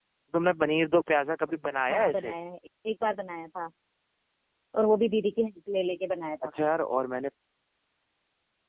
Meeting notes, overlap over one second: none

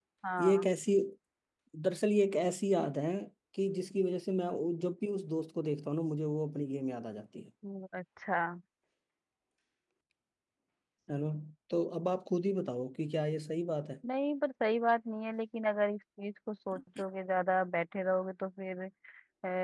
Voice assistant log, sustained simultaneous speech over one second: none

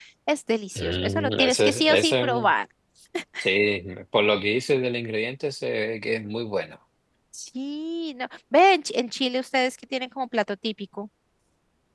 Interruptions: present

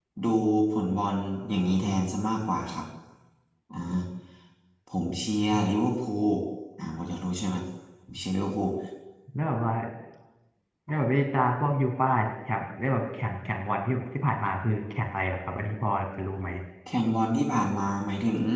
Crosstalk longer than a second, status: none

